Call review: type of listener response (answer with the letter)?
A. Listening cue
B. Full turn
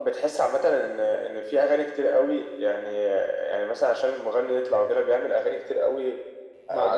B